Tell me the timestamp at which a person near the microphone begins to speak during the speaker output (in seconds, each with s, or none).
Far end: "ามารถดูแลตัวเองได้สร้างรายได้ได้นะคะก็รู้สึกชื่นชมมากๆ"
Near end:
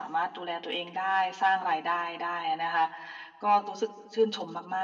none